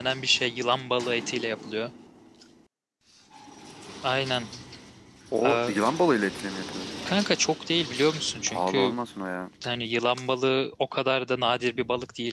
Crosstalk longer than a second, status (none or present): none